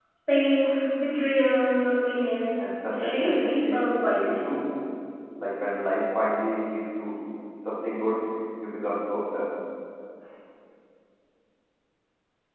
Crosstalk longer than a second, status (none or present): present